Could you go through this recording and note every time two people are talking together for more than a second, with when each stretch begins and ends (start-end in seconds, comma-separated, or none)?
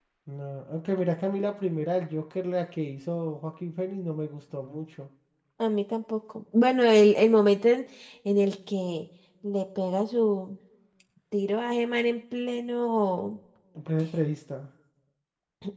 none